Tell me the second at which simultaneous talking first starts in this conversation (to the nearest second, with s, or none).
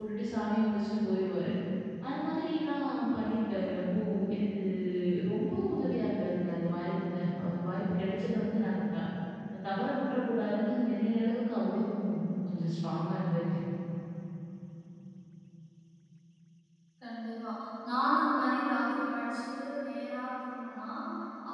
none